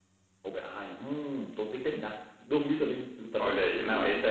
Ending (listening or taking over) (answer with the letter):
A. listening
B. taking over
B